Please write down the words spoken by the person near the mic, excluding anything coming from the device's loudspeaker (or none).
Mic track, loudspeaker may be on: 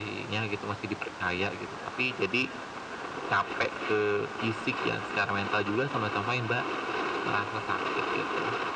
none